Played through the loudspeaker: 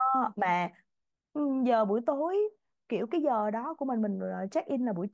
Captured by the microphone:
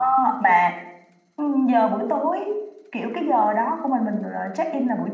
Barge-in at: none

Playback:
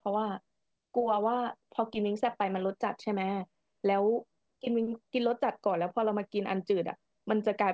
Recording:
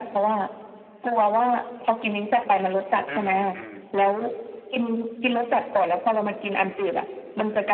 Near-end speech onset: 3.0 s

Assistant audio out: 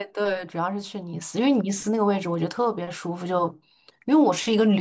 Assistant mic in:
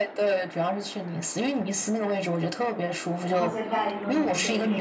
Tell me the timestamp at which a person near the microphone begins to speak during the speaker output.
3.2 s

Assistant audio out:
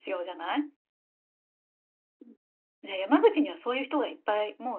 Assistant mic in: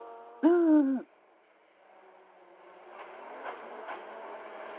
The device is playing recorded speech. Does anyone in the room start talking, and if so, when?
0.4 s

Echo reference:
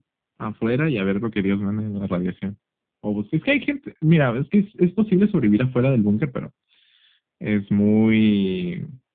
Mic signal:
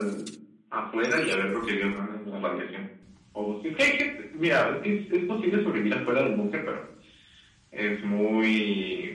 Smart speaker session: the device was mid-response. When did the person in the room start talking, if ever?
none

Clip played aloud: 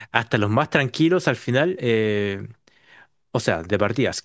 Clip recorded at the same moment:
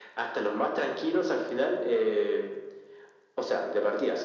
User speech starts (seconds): none

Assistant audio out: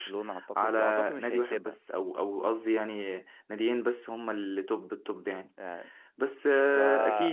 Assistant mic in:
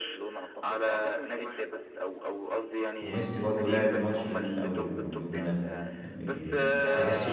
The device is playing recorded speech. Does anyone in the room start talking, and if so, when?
3.0 s

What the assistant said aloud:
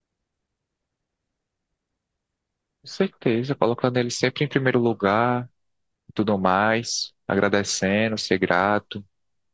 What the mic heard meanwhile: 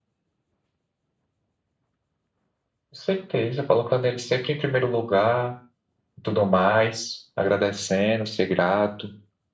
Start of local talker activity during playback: none

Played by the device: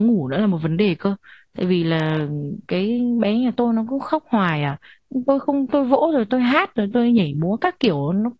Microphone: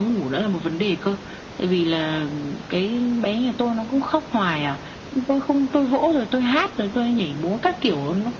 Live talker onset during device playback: none

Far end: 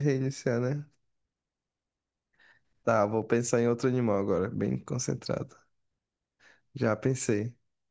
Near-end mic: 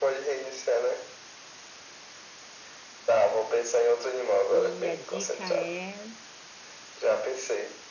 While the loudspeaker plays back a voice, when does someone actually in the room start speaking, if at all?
4.5 s

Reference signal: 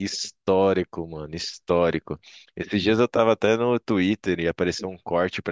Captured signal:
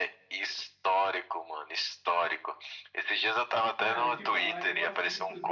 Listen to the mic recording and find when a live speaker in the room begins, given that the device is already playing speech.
3.8 s

